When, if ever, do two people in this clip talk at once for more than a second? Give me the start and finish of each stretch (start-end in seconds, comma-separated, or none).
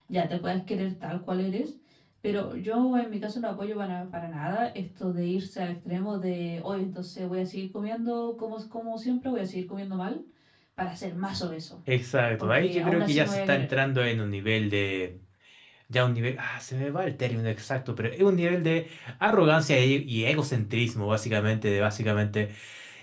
12.4-13.7